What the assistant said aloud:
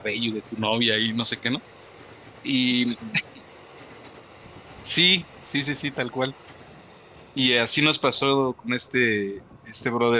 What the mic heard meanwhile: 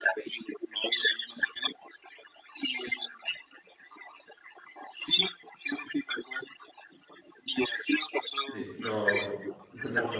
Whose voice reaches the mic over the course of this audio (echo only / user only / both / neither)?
both